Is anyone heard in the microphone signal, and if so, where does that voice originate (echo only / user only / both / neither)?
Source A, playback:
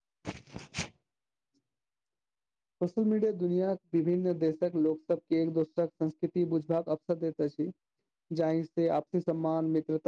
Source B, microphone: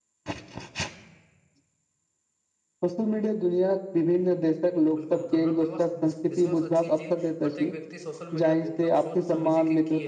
both